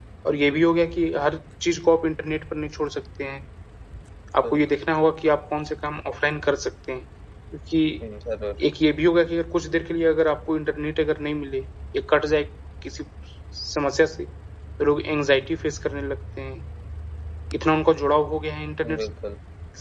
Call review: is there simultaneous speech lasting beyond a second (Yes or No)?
No